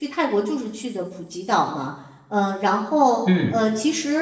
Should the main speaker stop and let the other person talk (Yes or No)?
No